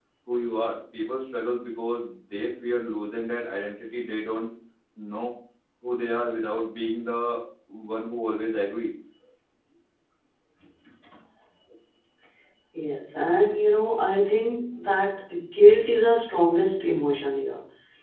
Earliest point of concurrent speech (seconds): none

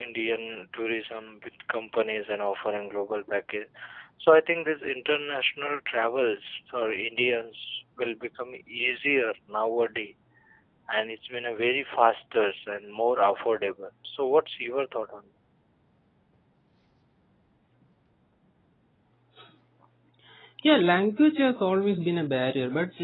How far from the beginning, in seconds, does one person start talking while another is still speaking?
none

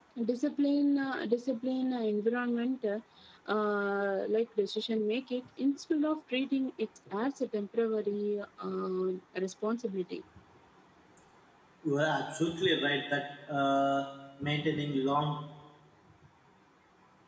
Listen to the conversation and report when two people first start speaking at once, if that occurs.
none

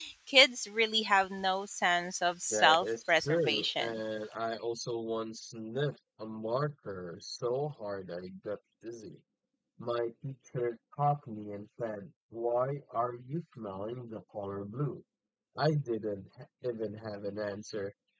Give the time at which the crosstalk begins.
2.5 s

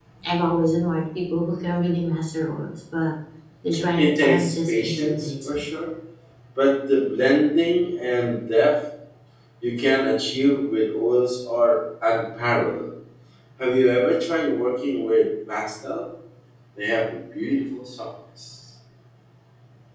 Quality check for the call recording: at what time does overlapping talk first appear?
4.0 s

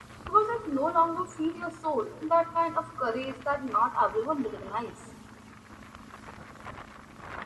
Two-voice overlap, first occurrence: none

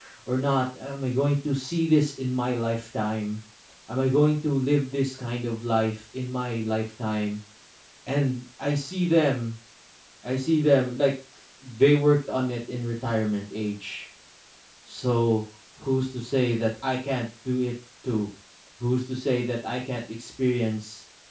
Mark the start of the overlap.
none

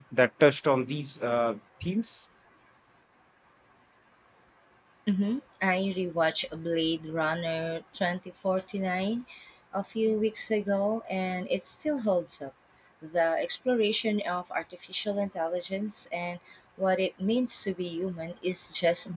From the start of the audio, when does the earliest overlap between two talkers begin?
none

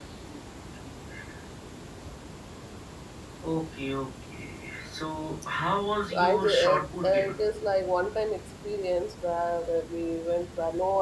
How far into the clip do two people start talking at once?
6.1 s

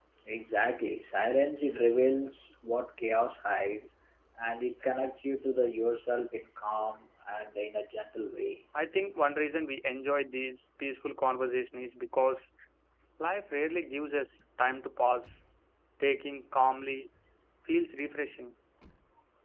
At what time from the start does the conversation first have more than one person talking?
none

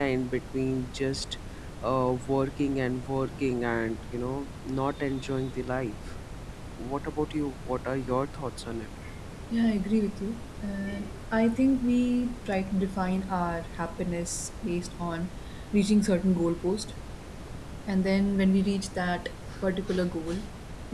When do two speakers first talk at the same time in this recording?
none

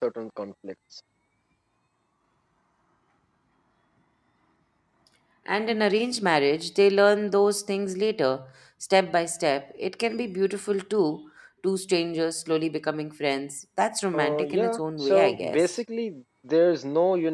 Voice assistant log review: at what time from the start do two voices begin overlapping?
14.1 s

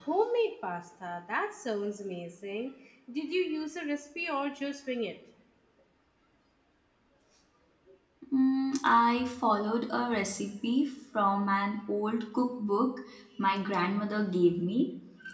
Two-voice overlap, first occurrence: none

